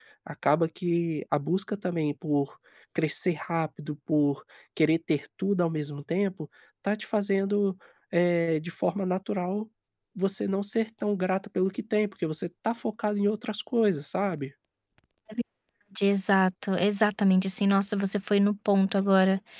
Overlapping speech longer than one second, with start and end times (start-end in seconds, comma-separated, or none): none